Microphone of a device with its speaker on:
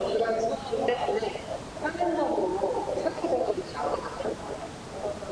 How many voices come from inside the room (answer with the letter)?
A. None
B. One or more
A